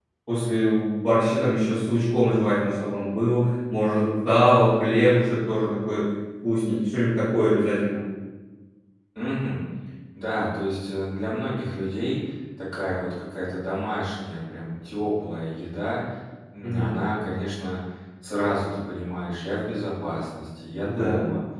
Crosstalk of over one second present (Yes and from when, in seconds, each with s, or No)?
No